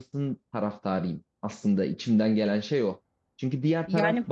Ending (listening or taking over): listening